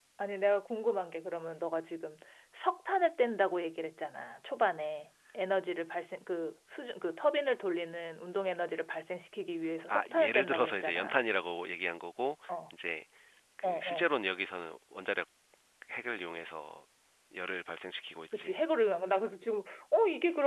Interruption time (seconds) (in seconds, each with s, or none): 9.9 s